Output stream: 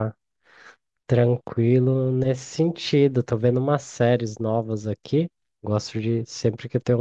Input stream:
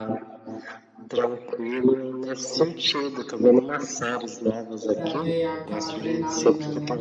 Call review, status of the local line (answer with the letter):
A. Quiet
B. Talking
B